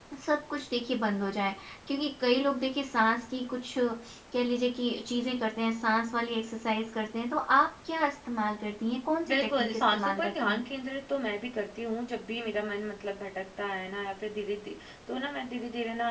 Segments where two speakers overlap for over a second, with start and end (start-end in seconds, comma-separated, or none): 9.3-10.6